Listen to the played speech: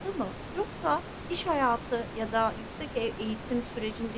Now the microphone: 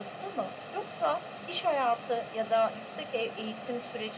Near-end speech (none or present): none